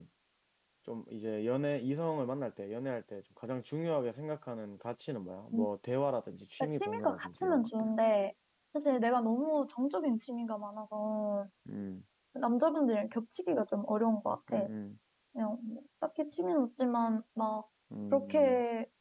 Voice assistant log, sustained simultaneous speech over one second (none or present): present